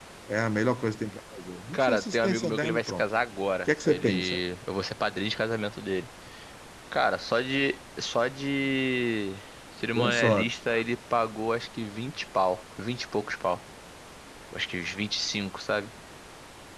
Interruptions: present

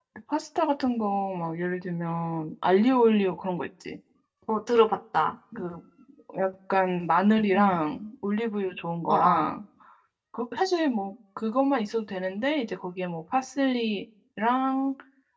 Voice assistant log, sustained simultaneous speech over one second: none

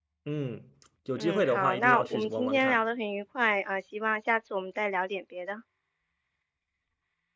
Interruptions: present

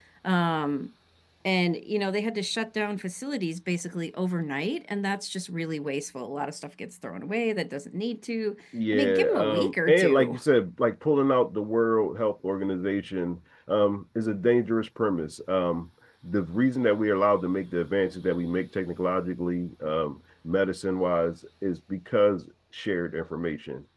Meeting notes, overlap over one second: present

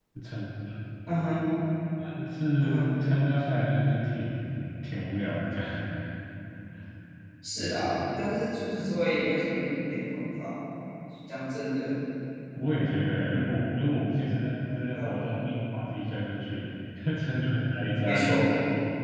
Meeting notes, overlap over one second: none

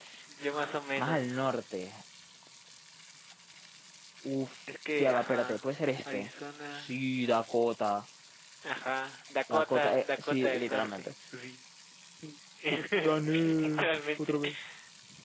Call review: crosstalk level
present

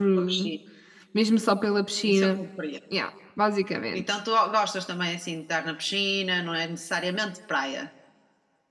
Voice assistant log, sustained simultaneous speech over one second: none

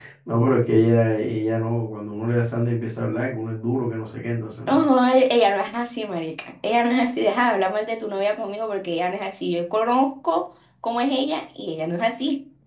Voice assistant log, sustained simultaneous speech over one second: none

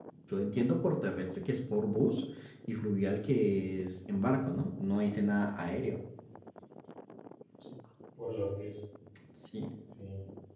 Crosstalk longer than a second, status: none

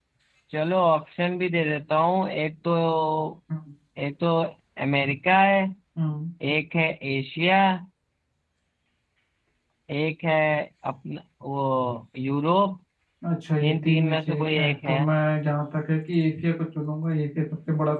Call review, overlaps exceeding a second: present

